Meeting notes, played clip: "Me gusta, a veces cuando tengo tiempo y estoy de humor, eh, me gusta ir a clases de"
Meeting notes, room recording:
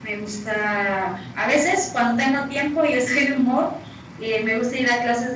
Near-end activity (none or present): none